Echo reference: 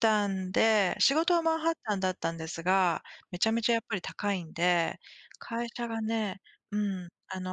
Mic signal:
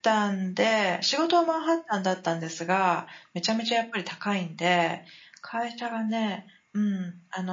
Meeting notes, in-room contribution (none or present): none